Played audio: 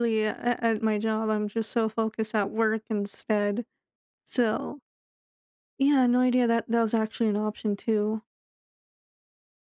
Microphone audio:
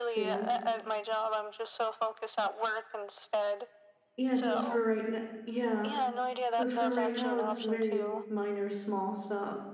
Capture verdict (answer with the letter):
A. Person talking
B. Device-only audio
A